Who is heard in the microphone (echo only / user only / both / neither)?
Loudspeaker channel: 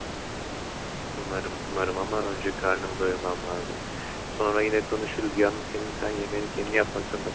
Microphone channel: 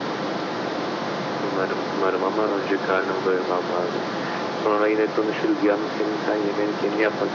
echo only